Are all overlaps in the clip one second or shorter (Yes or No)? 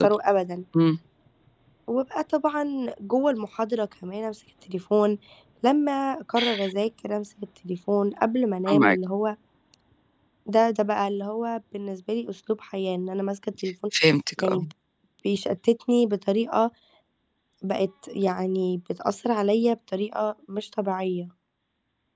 Yes